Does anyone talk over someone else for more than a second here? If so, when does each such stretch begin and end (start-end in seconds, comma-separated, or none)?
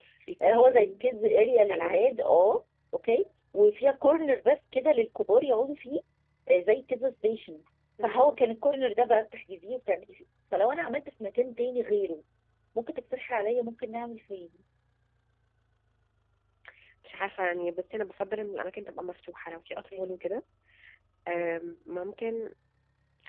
none